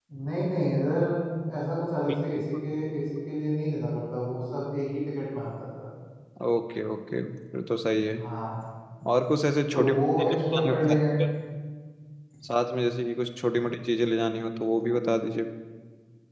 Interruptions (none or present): present